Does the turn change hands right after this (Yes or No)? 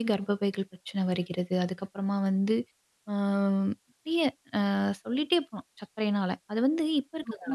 Yes